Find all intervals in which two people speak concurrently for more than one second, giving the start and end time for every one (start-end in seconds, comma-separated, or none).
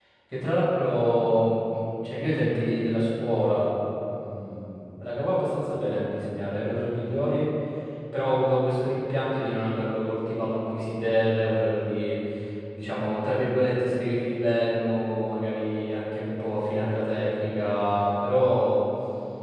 none